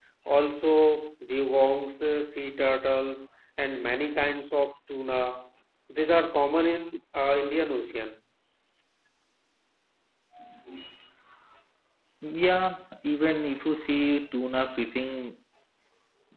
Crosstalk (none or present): none